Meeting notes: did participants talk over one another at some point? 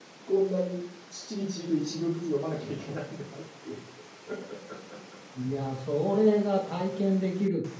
No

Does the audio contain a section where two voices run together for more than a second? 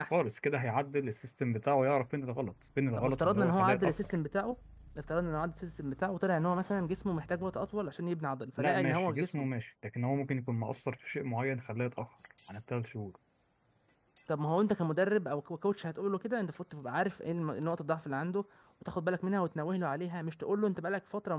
Yes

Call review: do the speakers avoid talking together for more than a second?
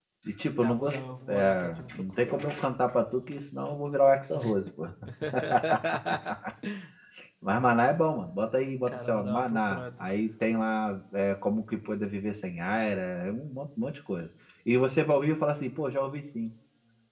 No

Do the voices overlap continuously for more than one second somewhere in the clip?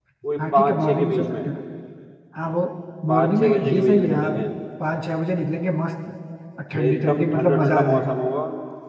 Yes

